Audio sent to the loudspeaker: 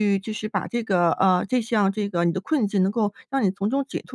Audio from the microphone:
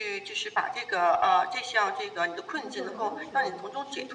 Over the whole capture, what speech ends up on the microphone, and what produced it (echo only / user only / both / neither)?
both